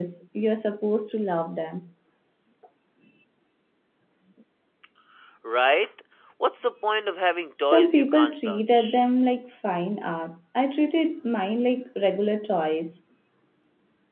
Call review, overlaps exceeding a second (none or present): present